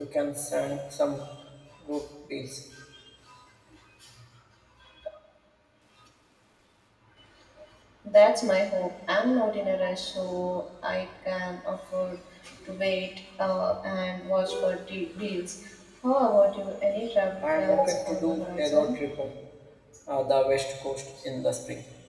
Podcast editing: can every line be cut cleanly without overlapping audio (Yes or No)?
No